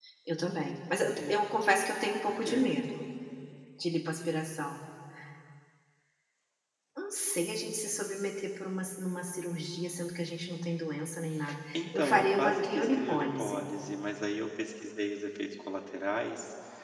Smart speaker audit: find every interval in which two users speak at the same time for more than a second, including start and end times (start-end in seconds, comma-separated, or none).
11.7-13.7